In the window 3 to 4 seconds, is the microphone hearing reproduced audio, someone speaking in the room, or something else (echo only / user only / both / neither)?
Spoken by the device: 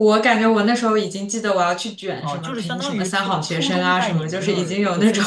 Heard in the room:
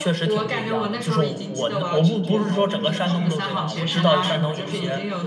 both